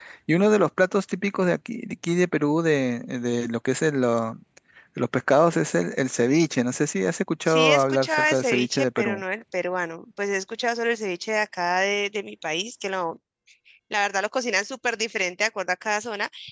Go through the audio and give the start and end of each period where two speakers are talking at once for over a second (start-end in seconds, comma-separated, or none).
7.5-9.2